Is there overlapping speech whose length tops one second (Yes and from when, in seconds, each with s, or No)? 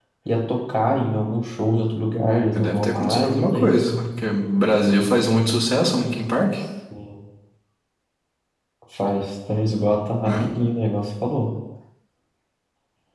Yes, from 2.5 s